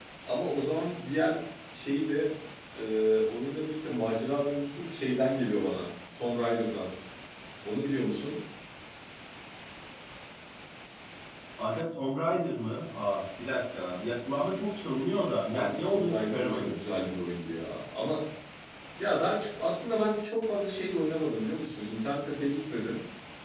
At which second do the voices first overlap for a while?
15.5 s

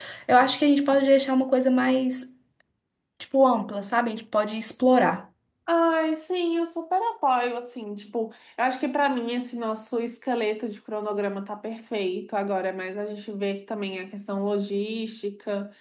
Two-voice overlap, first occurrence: none

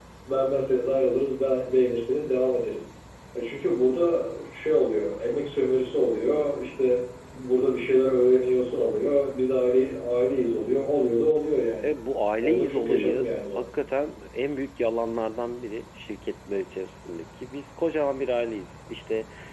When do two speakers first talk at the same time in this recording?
12.4 s

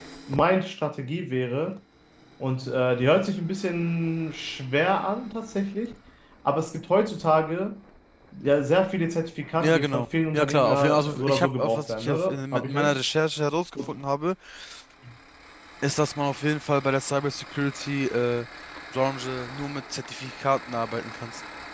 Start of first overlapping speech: 9.6 s

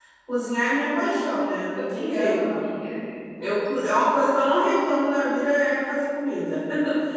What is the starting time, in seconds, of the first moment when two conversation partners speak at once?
1.4 s

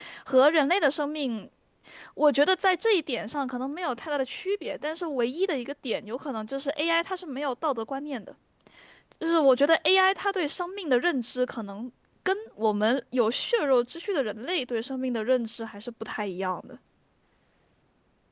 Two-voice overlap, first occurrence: none

